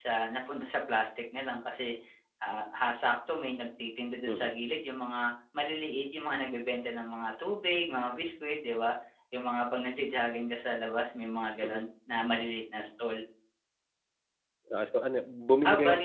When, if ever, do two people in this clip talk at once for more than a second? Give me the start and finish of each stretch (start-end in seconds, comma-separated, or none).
none